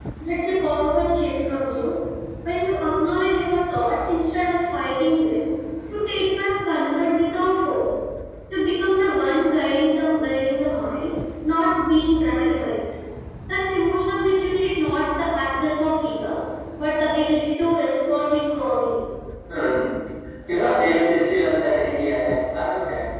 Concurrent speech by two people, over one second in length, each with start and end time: none

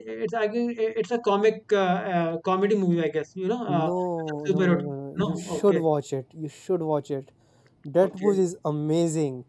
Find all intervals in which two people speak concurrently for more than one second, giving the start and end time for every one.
4.5-5.8

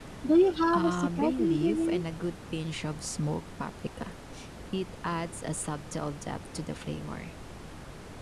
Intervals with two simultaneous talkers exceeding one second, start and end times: 0.8-2.0

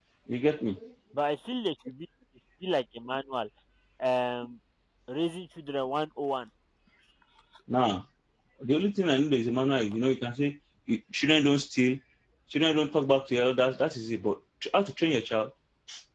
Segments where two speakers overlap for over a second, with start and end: none

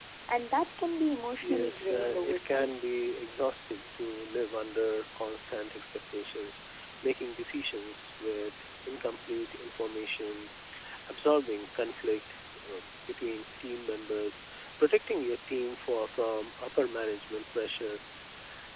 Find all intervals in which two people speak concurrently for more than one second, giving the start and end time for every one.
1.4-2.8

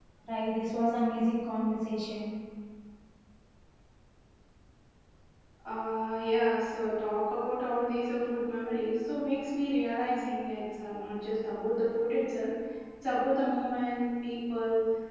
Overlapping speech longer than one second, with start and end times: none

